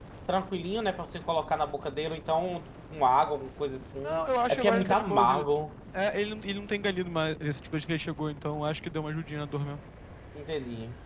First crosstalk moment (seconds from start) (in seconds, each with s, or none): 4.0 s